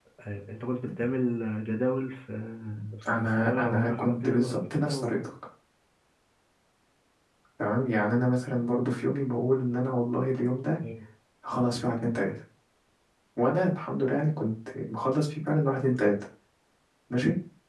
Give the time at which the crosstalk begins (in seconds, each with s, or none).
3.4 s